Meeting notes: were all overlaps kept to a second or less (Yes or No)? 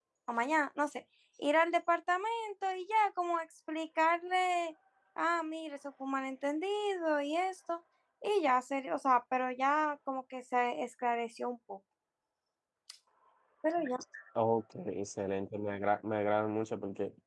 Yes